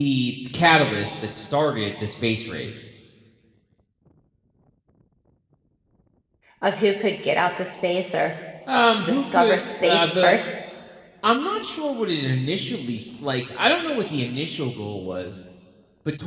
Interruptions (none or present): present